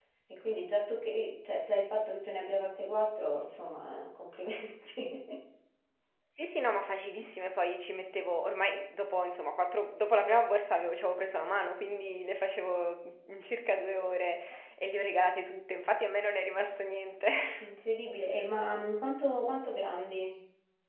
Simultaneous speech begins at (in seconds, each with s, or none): none